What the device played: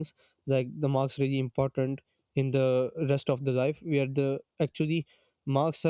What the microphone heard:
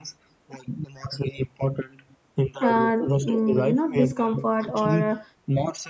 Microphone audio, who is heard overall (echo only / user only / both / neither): both